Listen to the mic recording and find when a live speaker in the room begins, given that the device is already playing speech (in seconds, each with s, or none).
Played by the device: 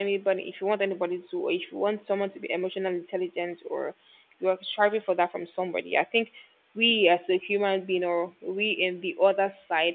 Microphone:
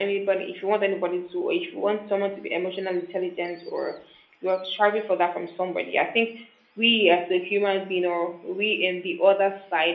none